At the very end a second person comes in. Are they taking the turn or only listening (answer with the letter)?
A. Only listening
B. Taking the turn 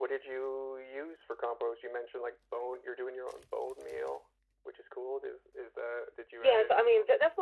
B